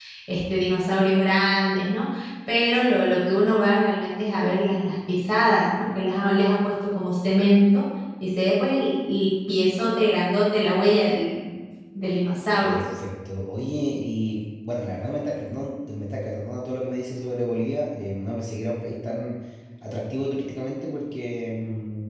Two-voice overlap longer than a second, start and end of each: none

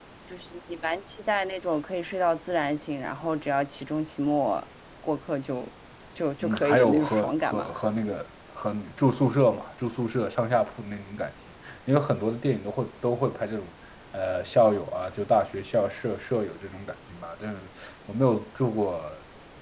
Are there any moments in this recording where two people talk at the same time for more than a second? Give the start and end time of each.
6.4-7.7

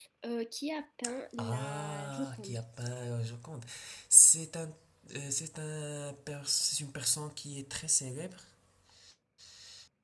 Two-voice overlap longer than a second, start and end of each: 1.4-2.6

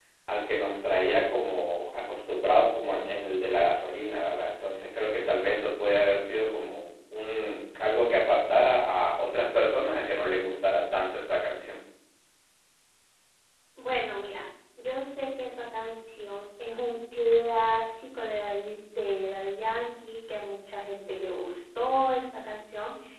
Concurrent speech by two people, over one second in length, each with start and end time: none

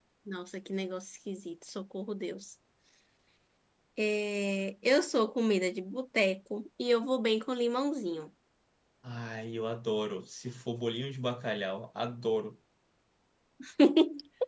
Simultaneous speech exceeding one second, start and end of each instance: none

